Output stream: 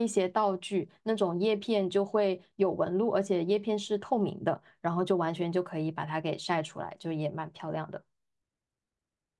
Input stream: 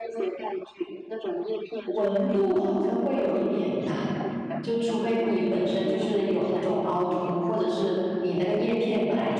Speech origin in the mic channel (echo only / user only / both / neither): both